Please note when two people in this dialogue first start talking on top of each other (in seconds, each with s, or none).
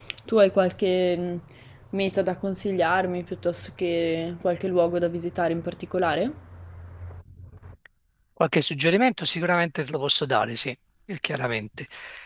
none